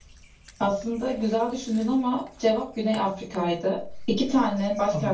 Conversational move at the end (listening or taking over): listening